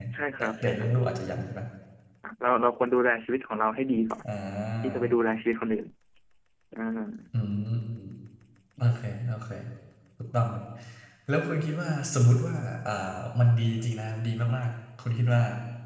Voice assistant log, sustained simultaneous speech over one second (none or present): none